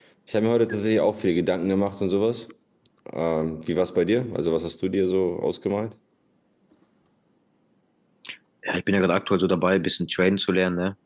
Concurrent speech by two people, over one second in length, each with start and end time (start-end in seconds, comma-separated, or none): none